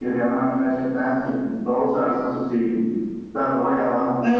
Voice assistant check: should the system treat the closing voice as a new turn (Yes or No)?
Yes